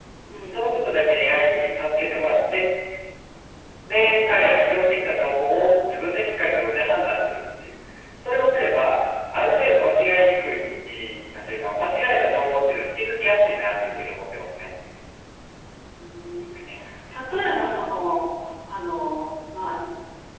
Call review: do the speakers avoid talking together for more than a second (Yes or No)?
Yes